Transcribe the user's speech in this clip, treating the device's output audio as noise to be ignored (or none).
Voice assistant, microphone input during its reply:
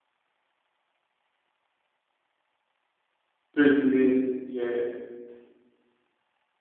straight away? Yeah,